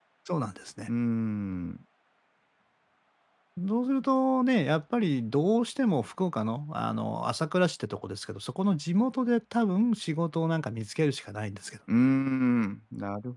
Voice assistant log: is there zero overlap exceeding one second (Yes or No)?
Yes